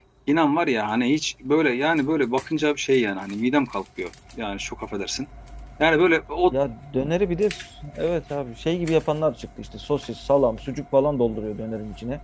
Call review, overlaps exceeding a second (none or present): none